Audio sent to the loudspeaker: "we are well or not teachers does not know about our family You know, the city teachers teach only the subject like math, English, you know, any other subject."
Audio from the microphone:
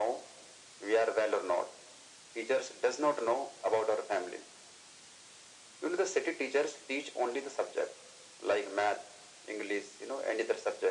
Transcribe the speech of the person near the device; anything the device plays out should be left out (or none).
none